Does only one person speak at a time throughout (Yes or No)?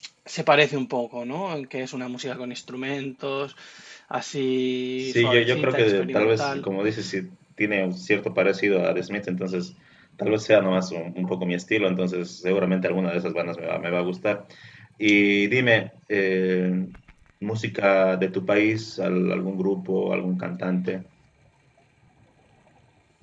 No